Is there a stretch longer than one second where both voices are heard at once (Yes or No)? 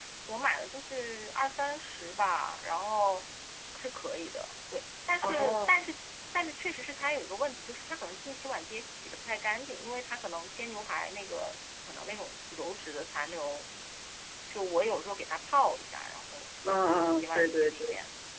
Yes